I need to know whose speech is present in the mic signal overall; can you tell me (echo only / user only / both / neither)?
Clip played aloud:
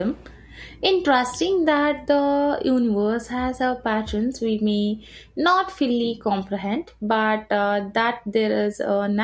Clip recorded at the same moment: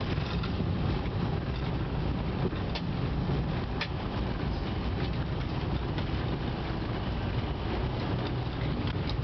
neither